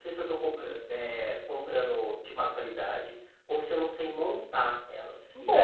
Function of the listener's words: taking over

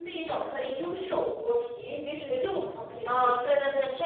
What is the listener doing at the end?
taking over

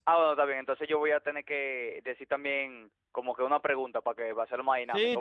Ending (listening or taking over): taking over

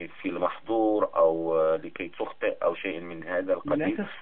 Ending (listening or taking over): taking over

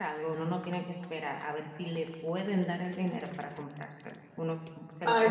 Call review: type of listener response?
taking over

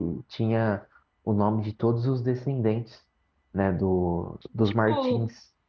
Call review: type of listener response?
taking over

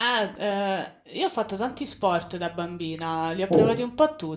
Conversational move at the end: listening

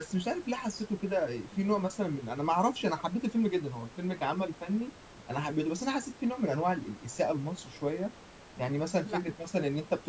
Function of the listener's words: listening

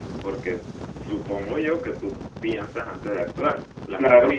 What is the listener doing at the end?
taking over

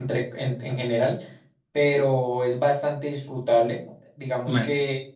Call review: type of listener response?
listening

